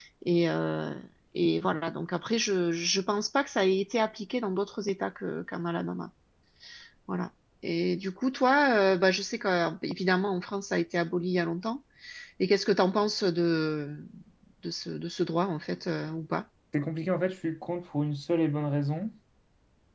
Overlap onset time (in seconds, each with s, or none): none